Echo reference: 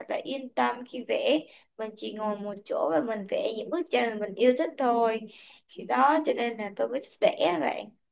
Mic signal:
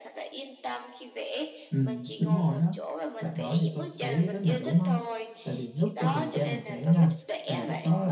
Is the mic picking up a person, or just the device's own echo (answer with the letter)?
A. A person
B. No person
A